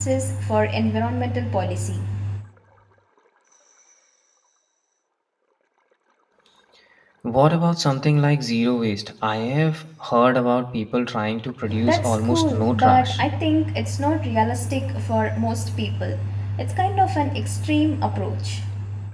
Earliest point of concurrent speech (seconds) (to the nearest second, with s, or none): 12 s